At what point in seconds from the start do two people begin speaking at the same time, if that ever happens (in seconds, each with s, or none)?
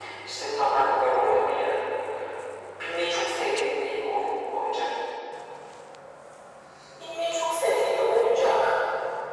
none